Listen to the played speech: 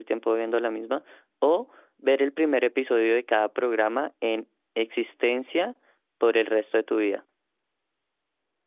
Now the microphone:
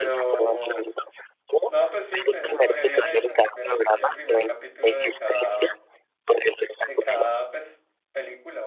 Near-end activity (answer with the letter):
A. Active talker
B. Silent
A